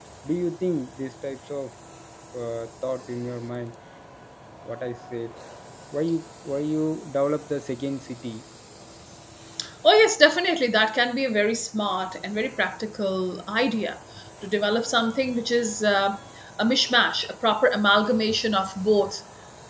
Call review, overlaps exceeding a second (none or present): none